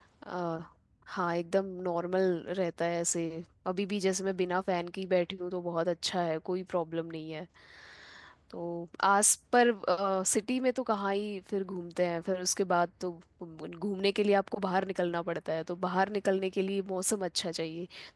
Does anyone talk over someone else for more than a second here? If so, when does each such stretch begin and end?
none

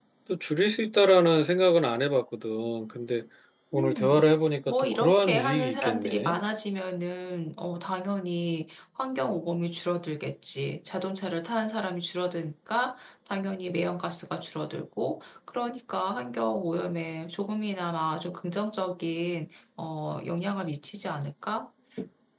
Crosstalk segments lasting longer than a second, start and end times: 4.7-6.4

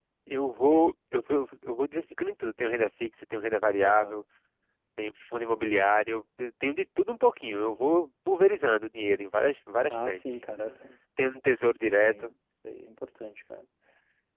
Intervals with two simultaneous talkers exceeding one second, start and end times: none

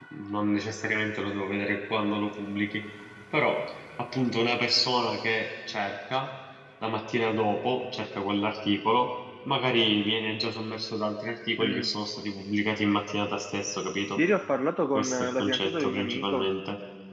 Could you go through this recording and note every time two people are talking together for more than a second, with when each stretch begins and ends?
14.9-16.5

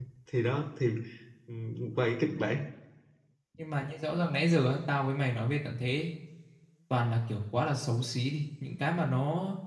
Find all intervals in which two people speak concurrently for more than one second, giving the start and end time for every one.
none

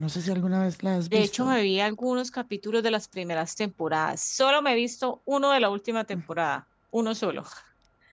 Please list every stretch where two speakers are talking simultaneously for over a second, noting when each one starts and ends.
none

